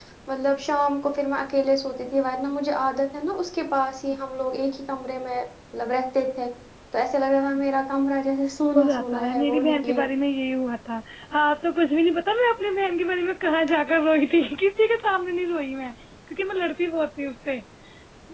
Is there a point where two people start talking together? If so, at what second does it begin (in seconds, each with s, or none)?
8.8 s